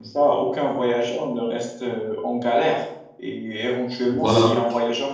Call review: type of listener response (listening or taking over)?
listening